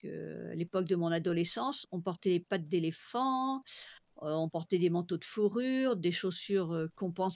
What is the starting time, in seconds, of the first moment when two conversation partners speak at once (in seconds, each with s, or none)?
none